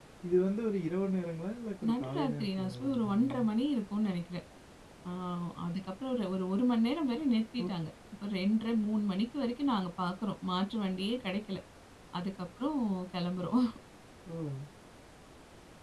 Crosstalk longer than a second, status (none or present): present